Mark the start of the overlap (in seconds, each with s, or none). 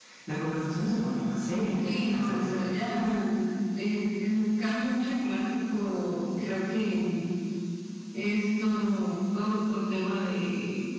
1.7 s